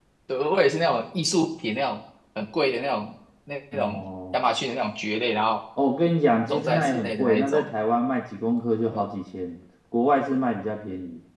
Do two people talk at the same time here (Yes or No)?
Yes